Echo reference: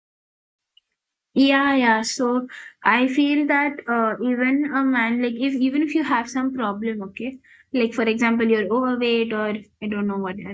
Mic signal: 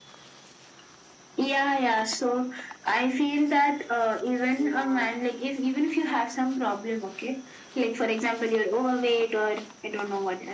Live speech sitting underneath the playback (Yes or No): Yes